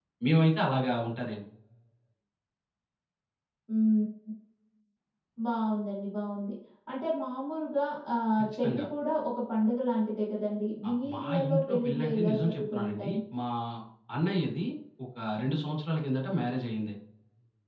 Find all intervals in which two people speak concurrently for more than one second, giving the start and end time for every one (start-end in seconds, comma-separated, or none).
10.9-13.2